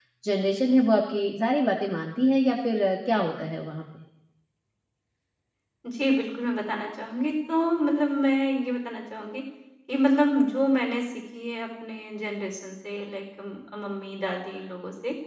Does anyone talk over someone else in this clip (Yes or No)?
No